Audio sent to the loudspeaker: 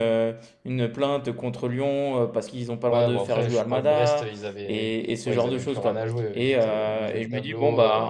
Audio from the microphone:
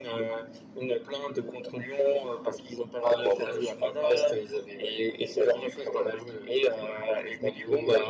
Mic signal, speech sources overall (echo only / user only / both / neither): echo only